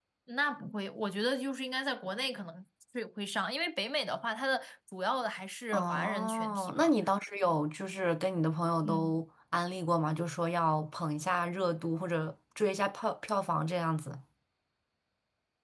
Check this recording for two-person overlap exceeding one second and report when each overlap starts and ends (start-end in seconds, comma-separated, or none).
5.7-6.9